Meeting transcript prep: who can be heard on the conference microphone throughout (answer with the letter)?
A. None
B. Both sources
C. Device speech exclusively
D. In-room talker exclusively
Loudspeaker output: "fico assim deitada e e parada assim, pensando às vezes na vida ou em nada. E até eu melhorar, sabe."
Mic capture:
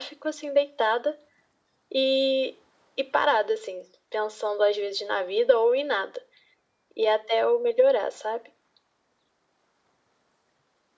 C